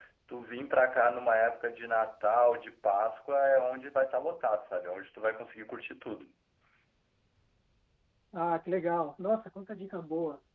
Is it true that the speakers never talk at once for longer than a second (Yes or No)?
Yes